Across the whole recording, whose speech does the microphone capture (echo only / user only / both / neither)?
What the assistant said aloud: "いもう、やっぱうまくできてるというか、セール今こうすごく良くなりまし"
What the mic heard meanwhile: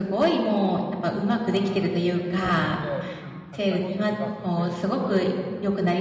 both